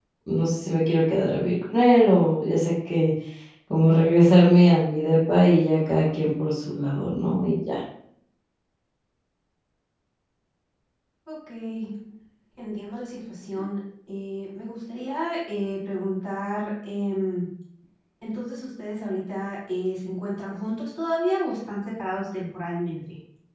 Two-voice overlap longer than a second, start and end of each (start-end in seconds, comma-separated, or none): none